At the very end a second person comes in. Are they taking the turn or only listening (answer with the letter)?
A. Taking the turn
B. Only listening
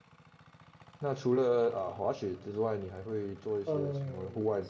A